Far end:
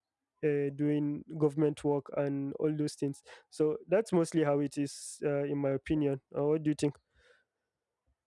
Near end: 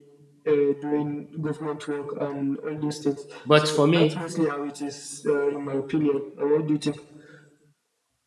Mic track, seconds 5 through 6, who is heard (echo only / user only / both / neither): echo only